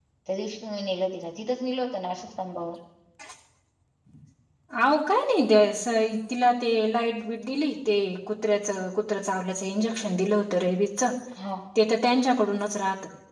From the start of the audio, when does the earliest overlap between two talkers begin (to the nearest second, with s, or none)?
none